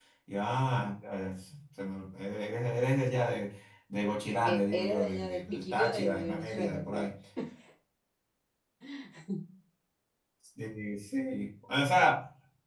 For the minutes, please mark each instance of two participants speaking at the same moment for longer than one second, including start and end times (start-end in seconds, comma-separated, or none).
4.3-7.1